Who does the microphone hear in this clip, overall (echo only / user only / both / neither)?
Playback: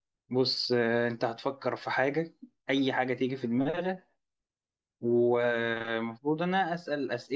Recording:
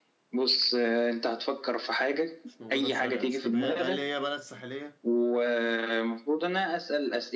both